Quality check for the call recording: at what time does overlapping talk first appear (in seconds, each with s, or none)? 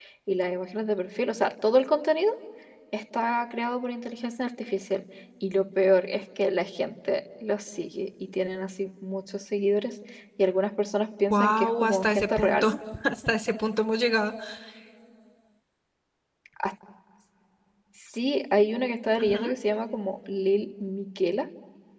11.3 s